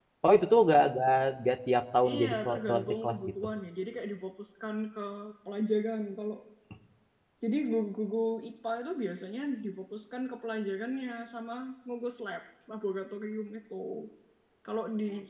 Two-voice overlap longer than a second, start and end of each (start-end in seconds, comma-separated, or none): 2.1-3.3